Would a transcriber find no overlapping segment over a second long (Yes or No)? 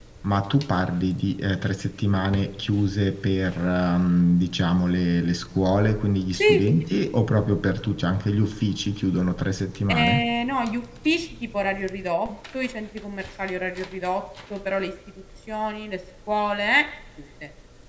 Yes